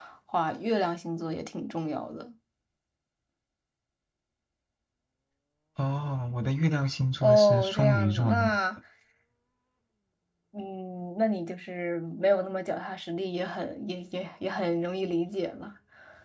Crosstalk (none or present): present